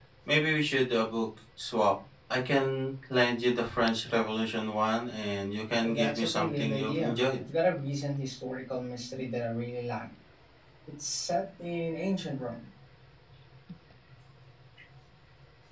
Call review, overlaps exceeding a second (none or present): present